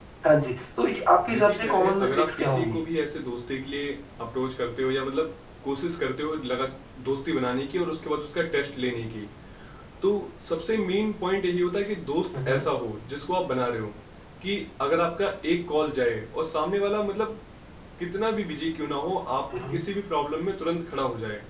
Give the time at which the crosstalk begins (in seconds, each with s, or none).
1.3 s